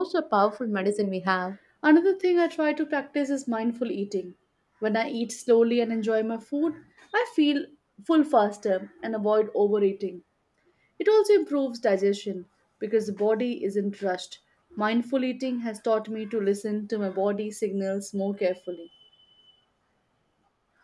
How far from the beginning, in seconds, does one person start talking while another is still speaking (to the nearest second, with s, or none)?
none